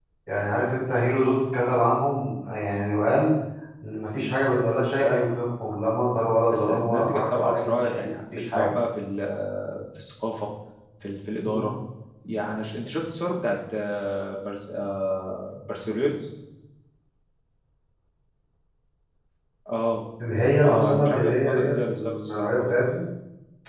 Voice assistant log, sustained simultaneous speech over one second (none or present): present